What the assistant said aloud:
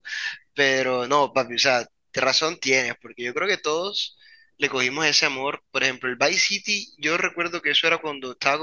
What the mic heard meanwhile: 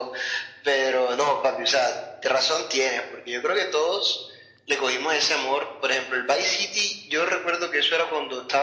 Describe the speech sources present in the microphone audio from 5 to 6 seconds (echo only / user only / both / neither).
echo only